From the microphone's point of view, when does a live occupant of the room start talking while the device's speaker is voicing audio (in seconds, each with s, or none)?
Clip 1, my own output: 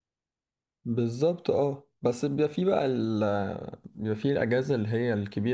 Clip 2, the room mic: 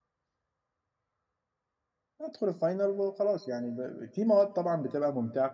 2.2 s